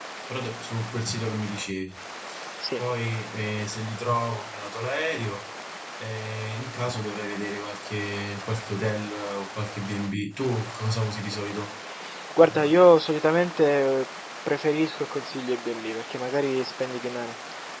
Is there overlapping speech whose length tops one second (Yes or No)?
No